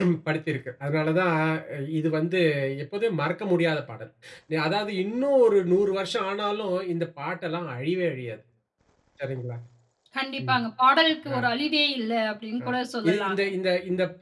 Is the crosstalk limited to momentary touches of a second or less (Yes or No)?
Yes